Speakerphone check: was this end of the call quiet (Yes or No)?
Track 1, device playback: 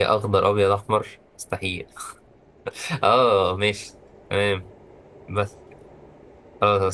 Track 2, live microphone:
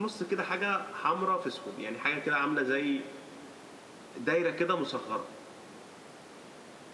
No